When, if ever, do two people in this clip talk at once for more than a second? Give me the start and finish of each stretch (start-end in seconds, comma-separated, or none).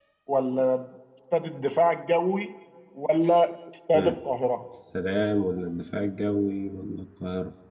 none